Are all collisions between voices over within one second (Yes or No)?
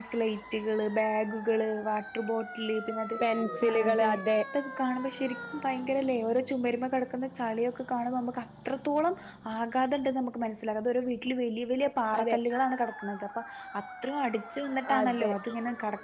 Yes